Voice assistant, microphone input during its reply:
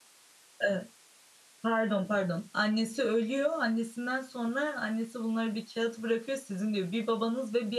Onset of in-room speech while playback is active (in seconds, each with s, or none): 0.6 s